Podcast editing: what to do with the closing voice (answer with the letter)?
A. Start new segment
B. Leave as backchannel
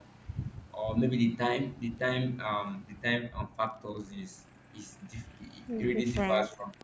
B